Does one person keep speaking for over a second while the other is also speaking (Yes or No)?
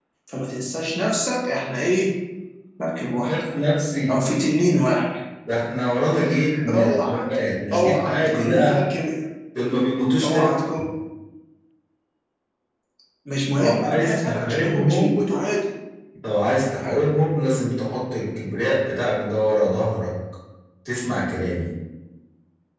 Yes